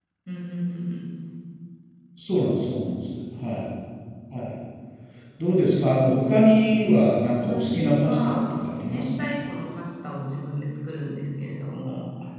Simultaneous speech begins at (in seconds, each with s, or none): 7.5 s